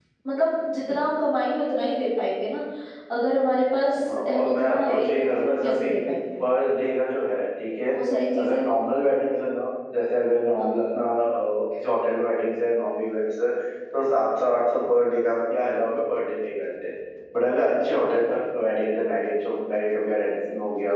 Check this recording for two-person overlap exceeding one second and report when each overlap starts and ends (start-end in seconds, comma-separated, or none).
4.0-5.9